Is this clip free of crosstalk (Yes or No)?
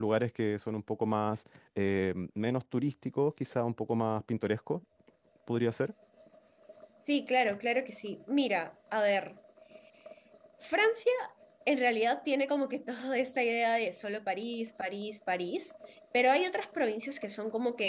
Yes